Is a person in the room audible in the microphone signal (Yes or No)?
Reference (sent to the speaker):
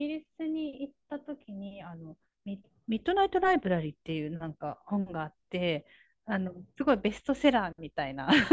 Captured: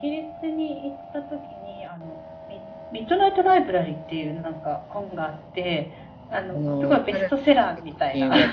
Yes